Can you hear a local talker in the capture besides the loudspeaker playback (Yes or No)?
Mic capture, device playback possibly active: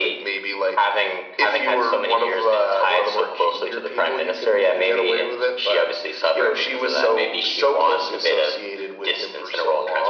No